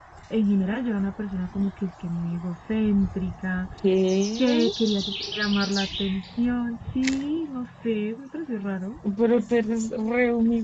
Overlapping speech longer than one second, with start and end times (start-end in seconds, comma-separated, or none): none